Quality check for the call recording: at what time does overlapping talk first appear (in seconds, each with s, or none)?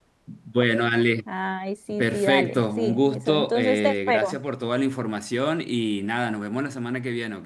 1.9 s